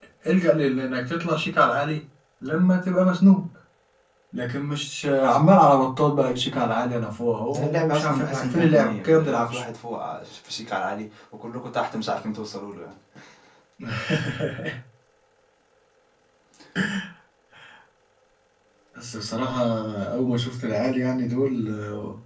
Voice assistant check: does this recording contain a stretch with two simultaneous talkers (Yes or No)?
Yes